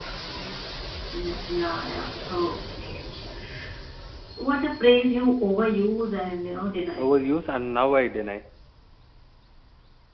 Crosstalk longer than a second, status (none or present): none